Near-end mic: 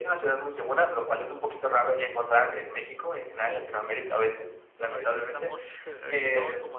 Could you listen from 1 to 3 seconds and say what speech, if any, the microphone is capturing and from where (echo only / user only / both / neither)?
echo only